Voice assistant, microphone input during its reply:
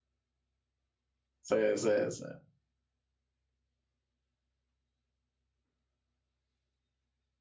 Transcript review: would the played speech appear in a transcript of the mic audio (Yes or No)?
No